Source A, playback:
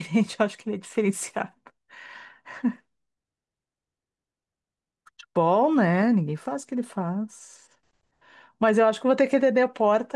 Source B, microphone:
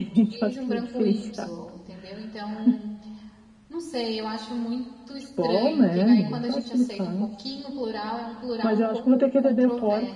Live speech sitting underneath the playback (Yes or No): Yes